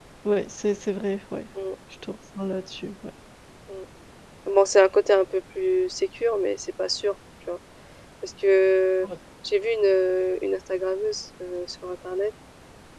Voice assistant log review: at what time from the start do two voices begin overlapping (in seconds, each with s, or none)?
none